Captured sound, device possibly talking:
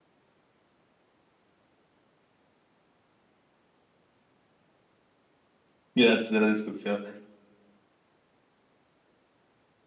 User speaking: Yes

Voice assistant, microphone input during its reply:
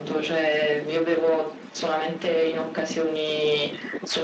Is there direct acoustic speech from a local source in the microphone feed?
No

